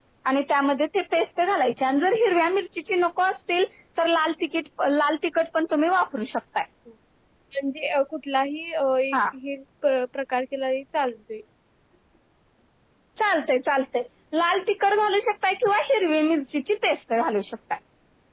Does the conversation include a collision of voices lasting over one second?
No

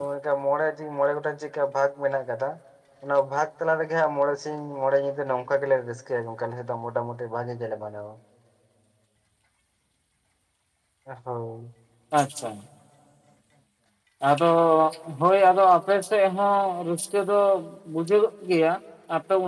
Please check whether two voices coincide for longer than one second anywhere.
No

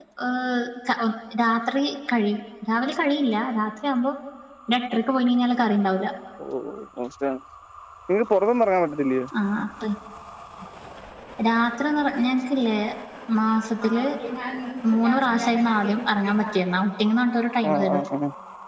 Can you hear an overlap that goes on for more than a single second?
No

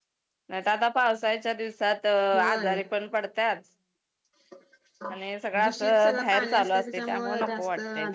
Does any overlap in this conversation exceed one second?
Yes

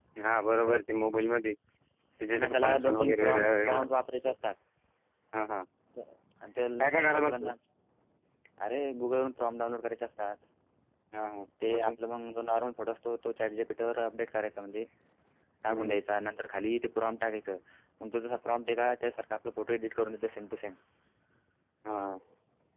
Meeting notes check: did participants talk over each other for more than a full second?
Yes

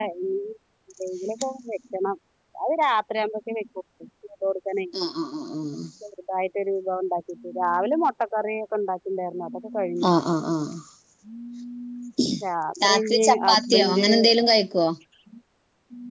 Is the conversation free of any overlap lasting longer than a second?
No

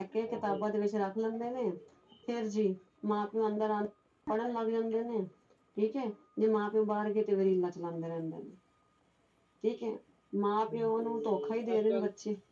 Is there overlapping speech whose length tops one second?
Yes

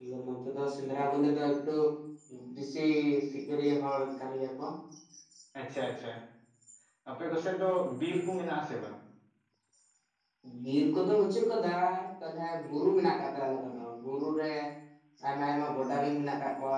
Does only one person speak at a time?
Yes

